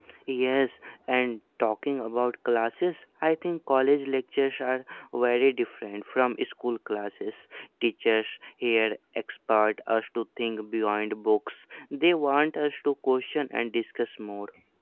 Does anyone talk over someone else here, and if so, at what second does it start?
none

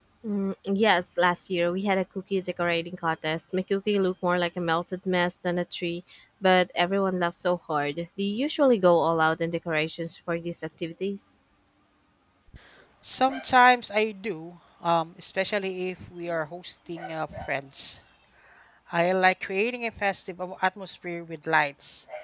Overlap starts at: none

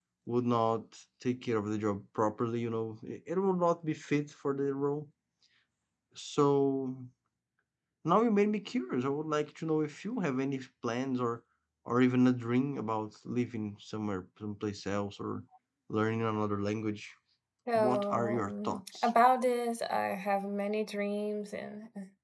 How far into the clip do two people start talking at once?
17.8 s

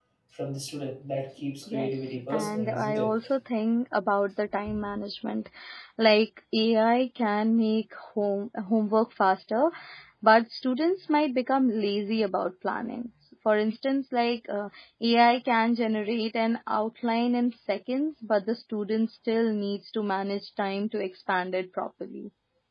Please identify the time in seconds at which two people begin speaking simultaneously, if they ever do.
1.7 s

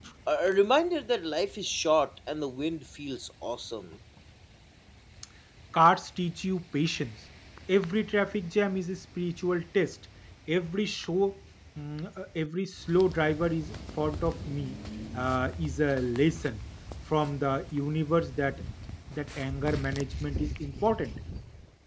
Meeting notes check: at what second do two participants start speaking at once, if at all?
none

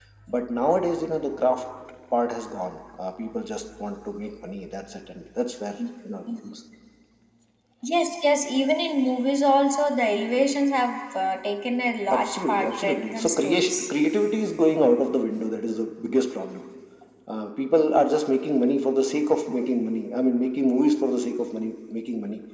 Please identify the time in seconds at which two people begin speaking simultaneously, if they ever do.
12.1 s

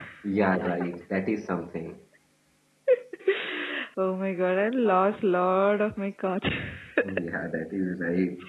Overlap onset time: none

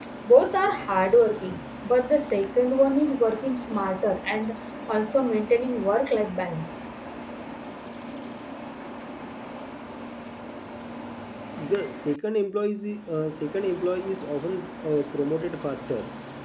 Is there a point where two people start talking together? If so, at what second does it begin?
none

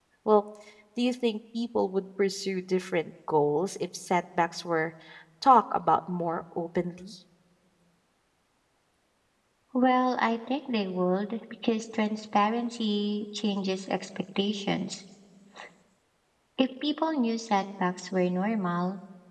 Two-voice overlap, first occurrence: none

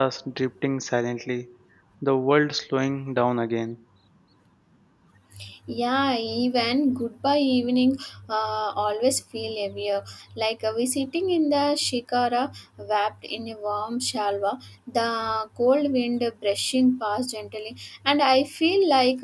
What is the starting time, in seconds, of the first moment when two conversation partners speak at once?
none

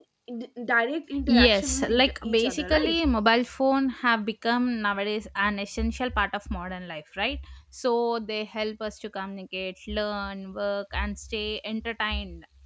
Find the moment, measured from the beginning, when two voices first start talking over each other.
1.3 s

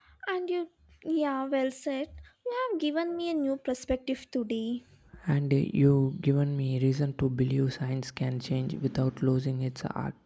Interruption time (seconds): none

